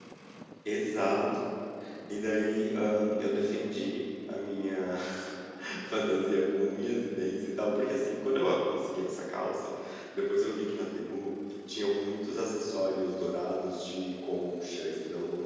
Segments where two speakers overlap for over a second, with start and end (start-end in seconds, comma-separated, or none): none